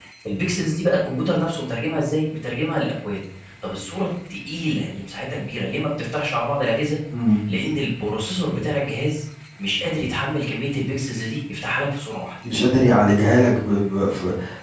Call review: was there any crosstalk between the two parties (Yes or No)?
No